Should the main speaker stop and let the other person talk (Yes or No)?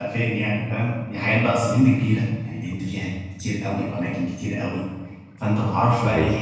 No